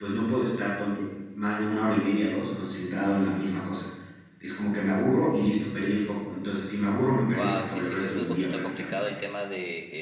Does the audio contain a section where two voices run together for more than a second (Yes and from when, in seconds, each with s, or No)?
Yes, from 7.3 s